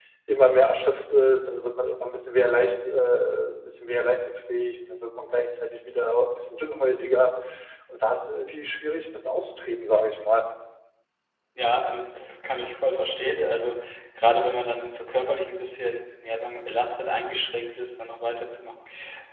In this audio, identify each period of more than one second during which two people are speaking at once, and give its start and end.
none

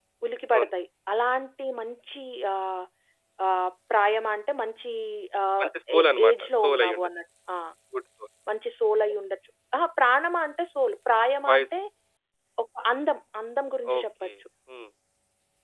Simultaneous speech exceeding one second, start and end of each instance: 5.6-7.1

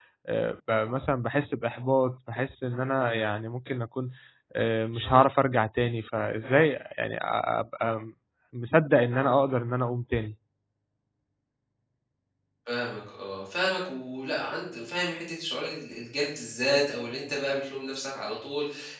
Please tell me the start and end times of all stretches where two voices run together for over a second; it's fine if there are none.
none

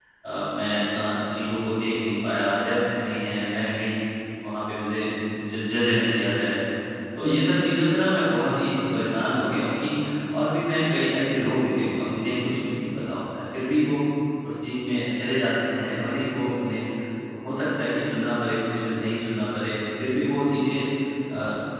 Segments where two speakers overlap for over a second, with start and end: none

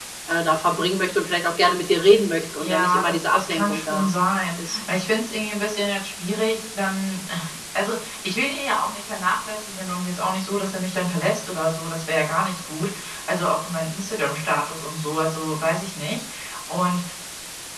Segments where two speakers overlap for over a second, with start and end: 2.6-4.1

